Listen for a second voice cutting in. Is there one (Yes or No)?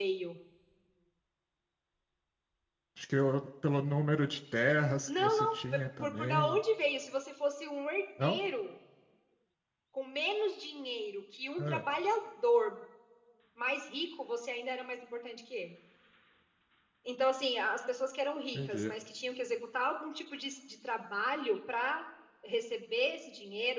Yes